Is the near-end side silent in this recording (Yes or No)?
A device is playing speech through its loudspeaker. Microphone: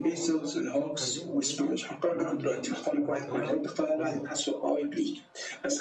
No